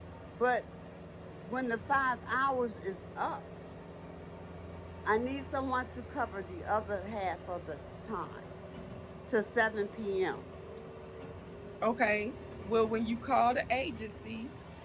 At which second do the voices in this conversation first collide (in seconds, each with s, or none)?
none